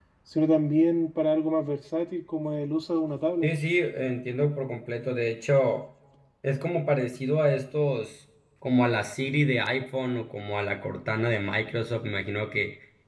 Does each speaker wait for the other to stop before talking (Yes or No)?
Yes